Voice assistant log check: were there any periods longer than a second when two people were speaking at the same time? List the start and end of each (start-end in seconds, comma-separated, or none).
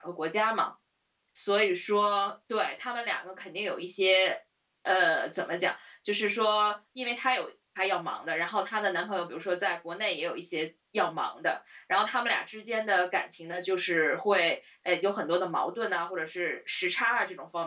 none